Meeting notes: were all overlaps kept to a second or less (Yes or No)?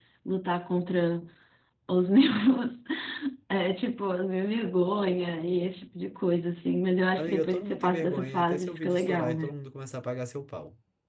No